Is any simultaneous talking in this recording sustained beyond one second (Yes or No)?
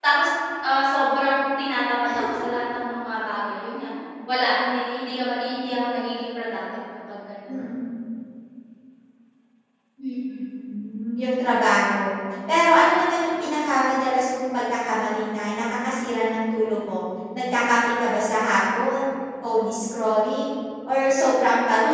No